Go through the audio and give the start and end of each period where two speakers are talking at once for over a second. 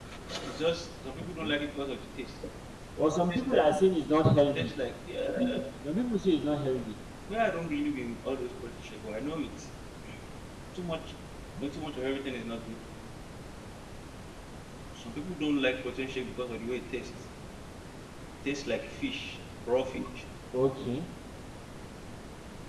none

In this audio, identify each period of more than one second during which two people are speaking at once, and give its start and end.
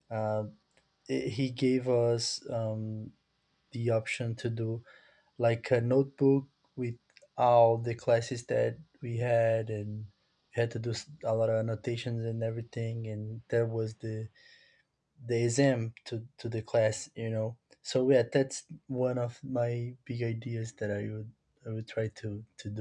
none

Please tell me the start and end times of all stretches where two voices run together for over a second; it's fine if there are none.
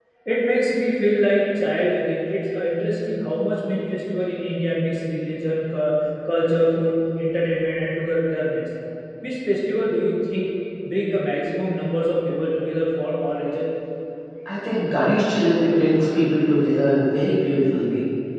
none

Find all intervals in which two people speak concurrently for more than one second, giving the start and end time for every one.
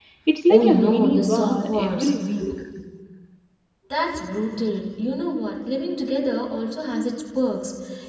0.5-2.1

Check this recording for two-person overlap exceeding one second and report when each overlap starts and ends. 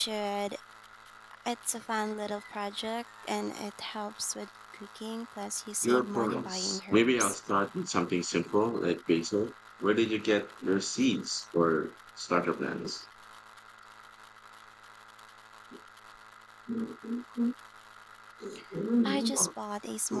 5.8-7.4

